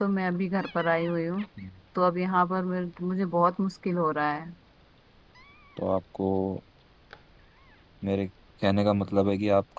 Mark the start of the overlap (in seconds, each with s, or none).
none